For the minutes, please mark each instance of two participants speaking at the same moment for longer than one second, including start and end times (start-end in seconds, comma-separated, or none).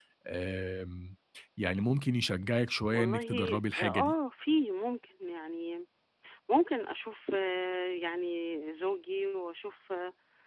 2.9-4.1